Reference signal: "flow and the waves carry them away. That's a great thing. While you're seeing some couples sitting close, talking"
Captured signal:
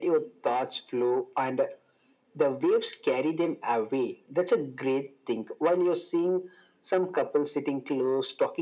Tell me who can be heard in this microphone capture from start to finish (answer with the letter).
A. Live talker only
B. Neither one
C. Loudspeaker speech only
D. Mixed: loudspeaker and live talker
C